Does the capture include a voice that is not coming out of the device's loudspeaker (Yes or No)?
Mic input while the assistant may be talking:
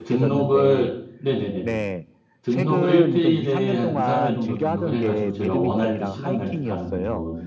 Yes